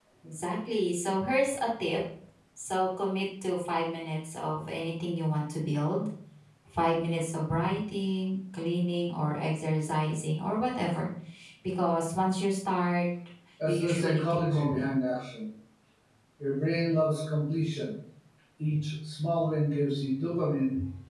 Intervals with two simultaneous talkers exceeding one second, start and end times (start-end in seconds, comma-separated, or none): 13.7-14.9